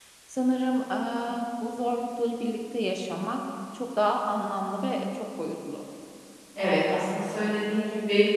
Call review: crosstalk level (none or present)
none